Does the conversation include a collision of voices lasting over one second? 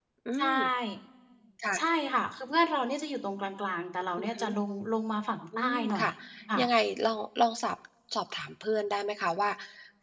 No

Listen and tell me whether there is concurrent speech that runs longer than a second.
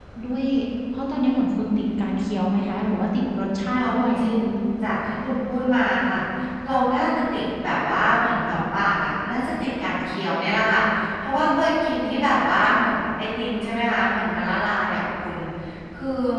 No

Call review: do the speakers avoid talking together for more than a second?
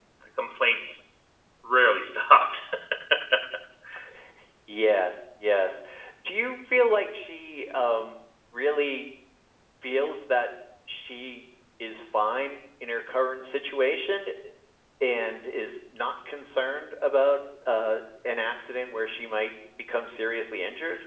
Yes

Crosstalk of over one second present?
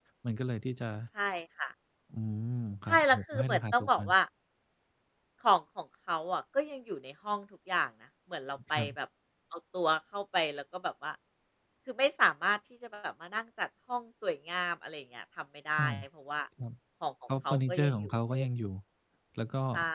Yes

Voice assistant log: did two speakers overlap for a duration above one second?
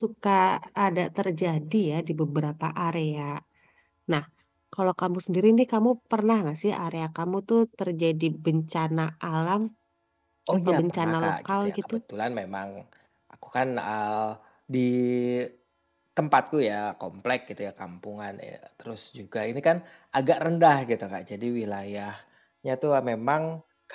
Yes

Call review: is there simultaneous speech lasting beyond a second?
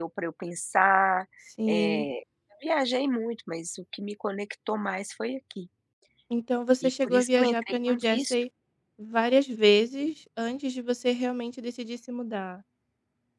Yes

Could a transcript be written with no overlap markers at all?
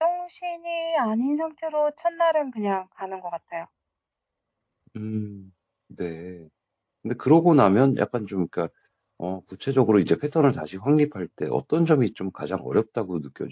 Yes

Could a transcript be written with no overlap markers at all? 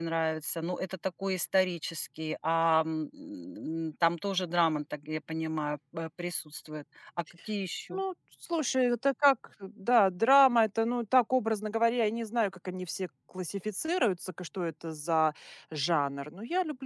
Yes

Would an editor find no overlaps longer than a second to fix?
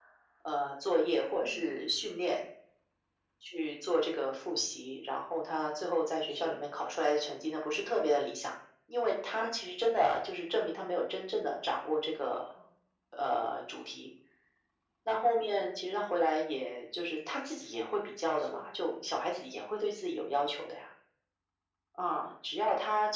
Yes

